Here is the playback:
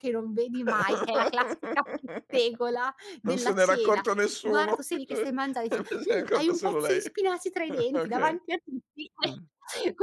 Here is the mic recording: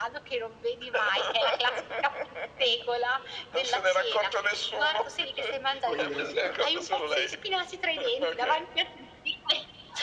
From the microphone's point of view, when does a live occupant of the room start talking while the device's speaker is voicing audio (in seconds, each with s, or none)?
5.9 s